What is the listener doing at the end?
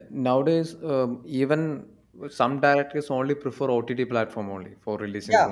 taking over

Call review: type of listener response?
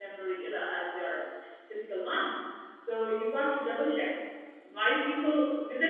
listening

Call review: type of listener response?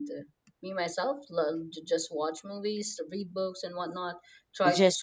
listening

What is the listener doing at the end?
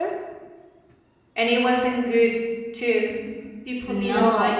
taking over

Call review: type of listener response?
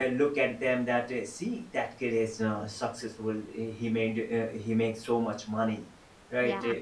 listening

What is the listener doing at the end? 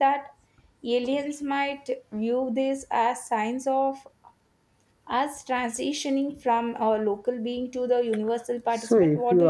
taking over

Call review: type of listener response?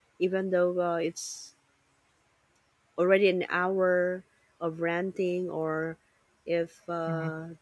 listening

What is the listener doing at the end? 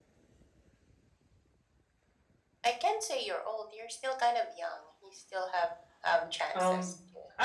taking over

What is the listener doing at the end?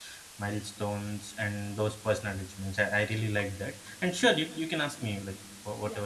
taking over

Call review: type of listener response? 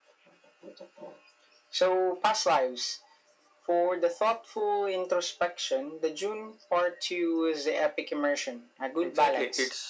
taking over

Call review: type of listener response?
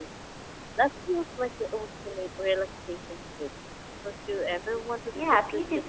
taking over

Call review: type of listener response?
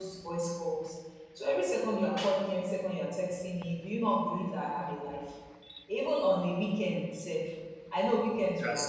listening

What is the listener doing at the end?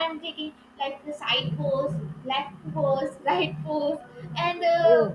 listening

